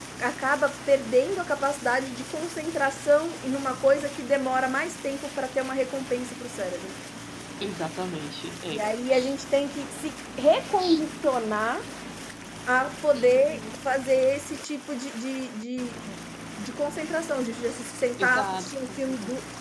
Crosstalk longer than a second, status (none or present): present